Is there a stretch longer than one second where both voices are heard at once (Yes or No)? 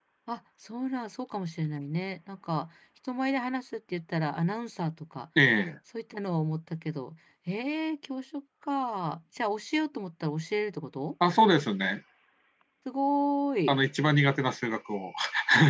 No